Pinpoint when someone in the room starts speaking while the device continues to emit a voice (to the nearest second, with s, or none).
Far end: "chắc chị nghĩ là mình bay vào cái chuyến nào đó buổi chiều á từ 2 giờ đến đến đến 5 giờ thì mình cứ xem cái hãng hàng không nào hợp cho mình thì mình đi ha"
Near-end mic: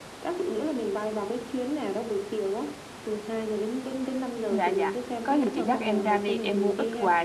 4 s